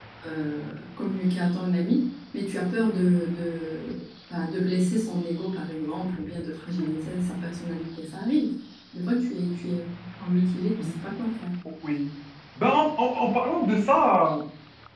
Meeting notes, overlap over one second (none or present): none